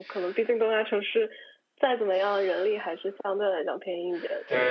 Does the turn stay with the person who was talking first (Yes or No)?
No